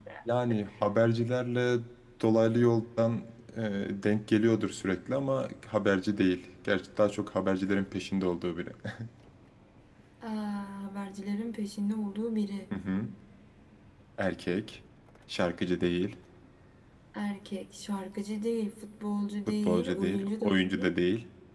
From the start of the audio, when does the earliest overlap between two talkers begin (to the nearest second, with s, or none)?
19 s